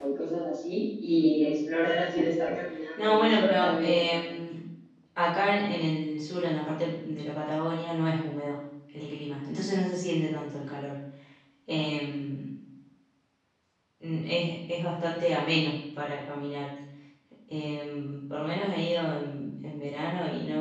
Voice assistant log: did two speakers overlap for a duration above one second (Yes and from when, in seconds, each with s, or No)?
Yes, from 3.0 s